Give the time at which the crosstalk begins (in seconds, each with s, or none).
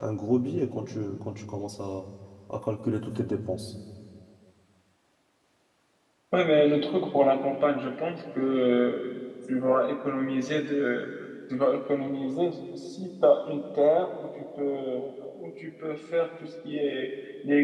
none